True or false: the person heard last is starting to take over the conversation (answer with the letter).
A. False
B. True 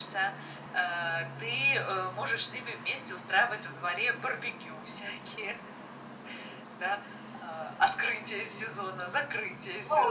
B